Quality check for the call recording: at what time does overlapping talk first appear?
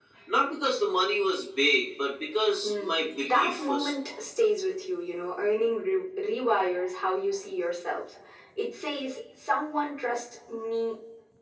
2.6 s

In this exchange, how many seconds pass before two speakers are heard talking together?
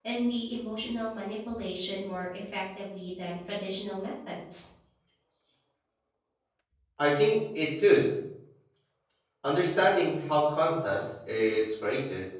none

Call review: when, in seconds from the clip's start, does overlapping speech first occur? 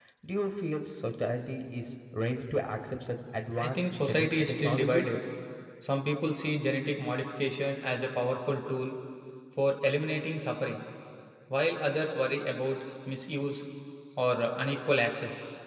3.5 s

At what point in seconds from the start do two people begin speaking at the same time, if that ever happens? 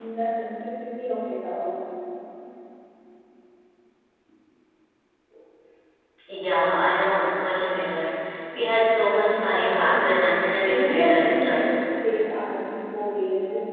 9.2 s

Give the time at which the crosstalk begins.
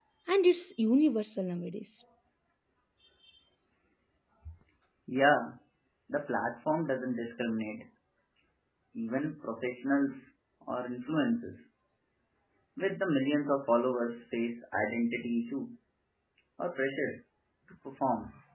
none

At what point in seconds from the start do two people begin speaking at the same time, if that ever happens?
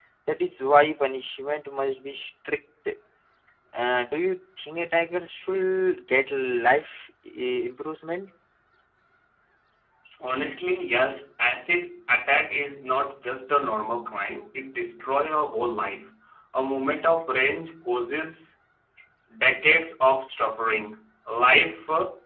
none

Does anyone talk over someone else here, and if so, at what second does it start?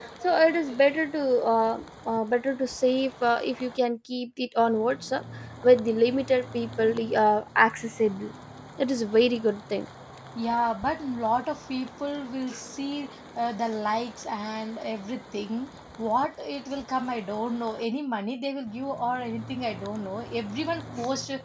none

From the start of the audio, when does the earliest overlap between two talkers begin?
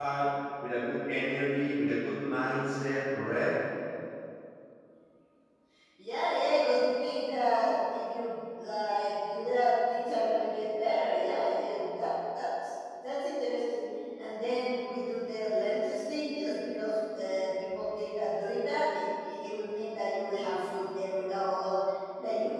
none

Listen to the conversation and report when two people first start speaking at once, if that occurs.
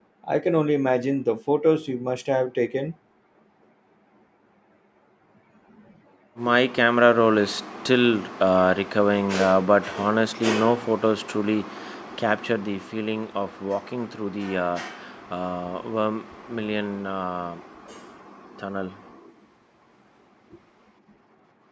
none

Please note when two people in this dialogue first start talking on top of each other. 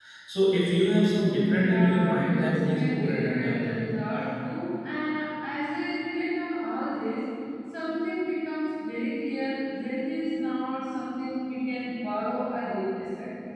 1.6 s

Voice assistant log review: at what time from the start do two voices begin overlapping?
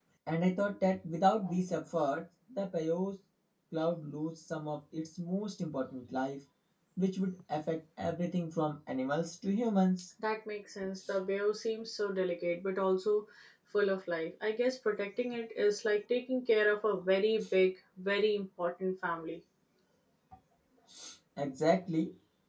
none

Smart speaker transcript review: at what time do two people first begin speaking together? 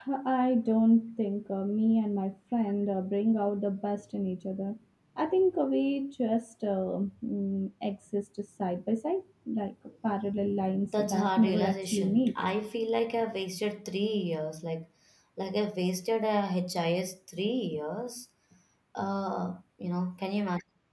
10.9 s

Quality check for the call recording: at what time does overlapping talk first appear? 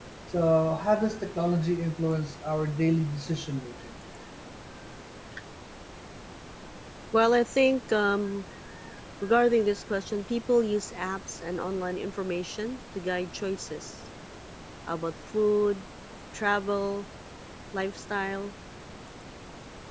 none

